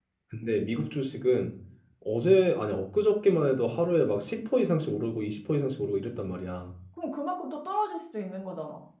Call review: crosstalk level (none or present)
none